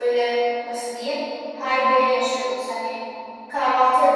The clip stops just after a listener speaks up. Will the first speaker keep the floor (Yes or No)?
Yes